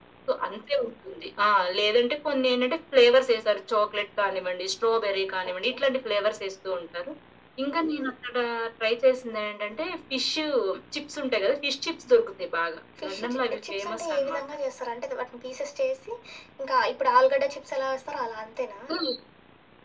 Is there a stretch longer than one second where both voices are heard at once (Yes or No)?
Yes